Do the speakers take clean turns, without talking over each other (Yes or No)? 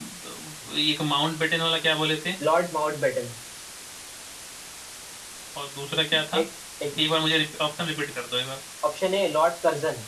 Yes